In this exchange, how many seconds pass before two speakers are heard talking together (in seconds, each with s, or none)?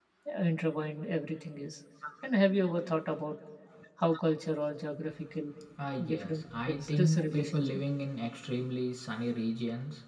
6.0 s